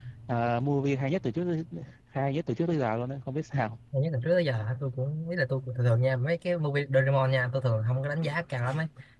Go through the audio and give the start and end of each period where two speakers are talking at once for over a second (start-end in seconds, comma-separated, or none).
none